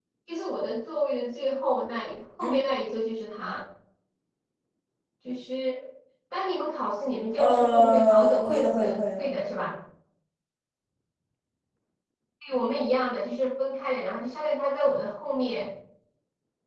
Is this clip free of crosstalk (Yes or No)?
No